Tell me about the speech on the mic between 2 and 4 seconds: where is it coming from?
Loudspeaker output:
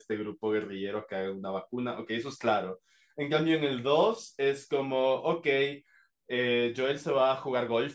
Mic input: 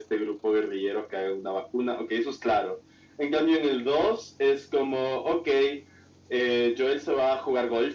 echo only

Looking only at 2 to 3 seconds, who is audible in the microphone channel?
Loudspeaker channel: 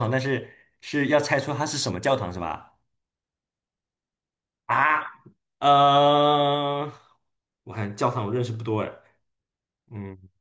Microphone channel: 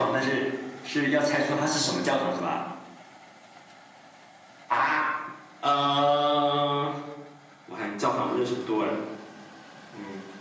echo only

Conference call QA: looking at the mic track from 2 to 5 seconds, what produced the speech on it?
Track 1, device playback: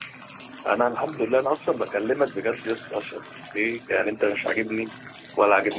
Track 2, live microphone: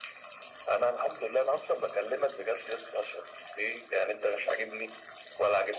echo only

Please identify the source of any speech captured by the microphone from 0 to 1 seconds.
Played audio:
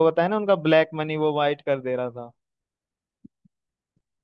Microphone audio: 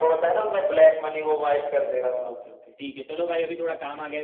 echo only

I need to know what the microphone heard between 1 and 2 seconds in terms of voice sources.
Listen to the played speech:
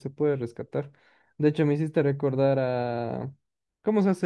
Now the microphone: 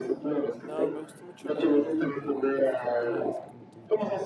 both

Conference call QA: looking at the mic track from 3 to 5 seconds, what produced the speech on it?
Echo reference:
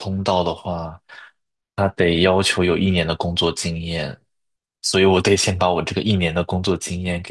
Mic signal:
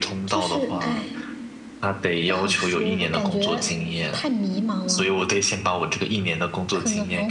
both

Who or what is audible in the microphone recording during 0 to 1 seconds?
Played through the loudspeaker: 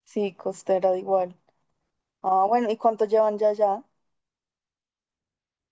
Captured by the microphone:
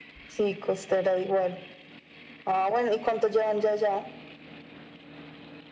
echo only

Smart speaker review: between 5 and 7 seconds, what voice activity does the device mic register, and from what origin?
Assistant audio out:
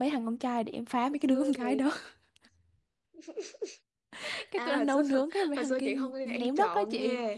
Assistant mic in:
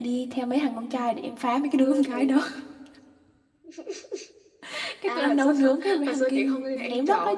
echo only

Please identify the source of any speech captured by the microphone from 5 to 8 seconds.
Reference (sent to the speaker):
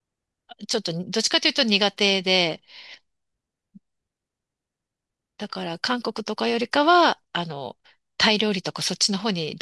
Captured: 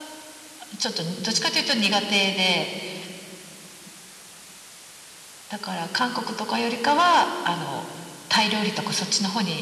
echo only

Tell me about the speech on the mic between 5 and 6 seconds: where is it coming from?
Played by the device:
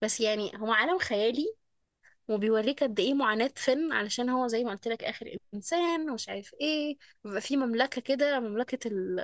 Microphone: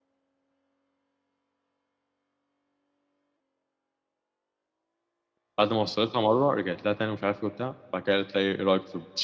user only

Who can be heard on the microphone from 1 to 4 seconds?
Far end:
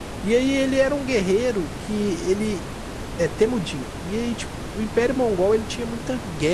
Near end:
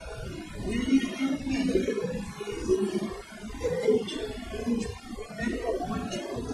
echo only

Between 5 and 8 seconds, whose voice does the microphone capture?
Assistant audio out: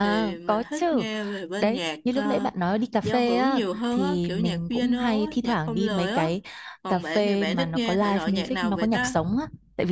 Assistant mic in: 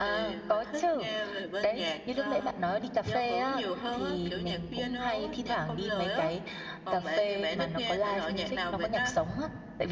echo only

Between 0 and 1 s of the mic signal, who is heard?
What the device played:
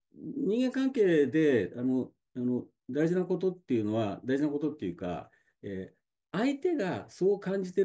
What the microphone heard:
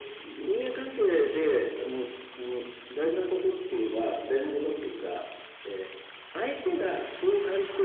echo only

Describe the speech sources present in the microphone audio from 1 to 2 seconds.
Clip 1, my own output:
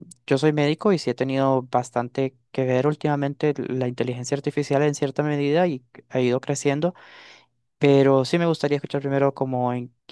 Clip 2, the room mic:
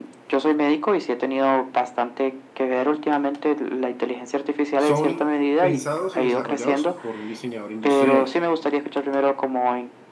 echo only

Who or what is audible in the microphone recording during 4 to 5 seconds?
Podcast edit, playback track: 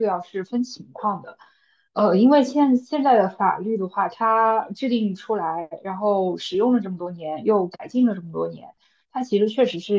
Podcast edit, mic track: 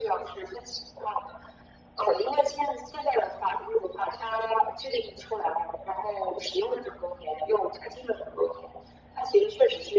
echo only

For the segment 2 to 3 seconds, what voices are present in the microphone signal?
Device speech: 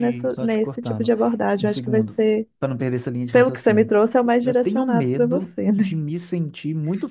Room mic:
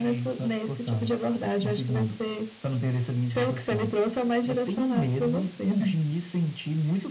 echo only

